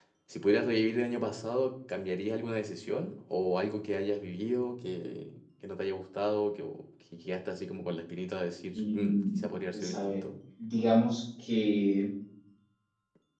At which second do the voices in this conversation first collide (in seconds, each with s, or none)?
8.8 s